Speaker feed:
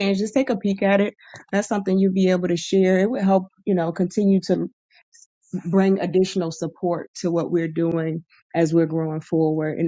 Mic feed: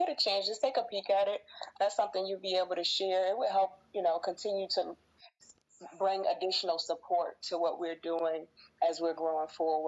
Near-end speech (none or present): none